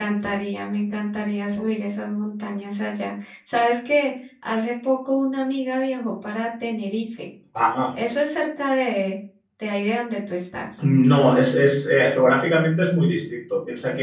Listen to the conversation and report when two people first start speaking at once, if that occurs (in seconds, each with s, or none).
none